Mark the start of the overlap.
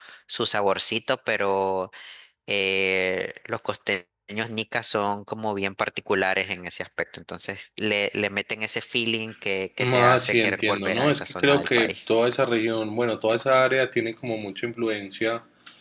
10 s

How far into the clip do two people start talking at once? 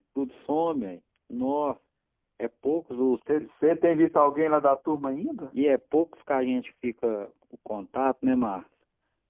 none

